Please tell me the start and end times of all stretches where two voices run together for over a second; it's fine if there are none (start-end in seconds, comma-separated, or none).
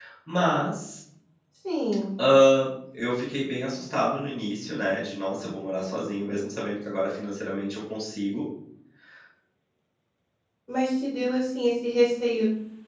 none